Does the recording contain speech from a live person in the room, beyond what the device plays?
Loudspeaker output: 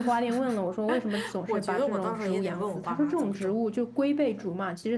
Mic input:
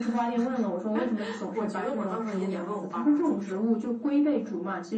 No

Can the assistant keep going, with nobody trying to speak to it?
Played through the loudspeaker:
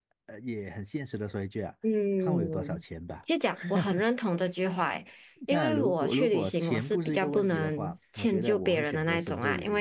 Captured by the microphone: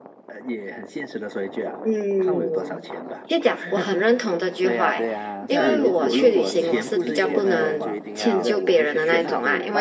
No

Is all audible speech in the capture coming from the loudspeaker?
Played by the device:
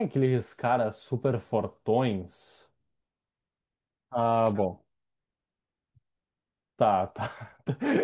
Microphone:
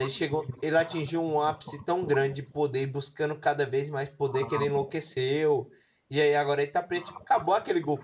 No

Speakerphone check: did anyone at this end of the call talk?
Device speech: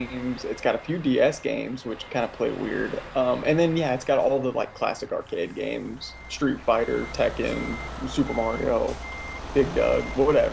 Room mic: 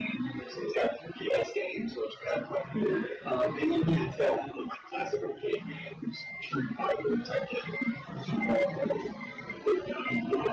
No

